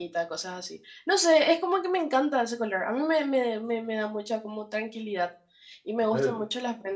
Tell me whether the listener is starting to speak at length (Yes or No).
No